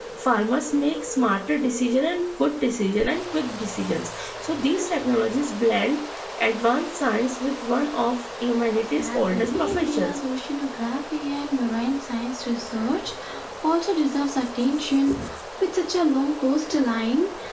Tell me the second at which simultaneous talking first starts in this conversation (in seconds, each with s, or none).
8.9 s